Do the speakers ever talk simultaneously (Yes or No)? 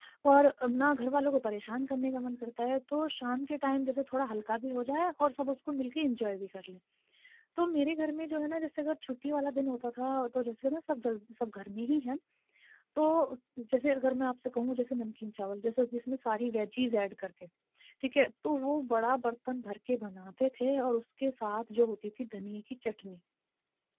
No